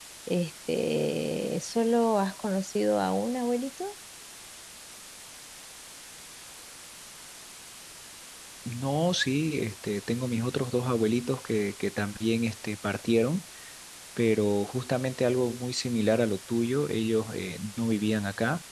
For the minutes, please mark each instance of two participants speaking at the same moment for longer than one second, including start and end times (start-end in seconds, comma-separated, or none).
none